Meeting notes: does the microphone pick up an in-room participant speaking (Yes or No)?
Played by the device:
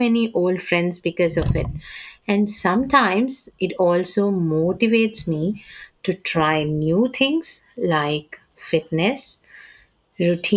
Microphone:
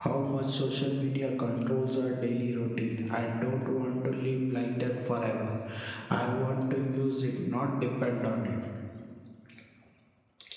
Yes